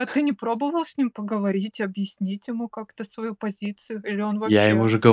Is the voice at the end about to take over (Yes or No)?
Yes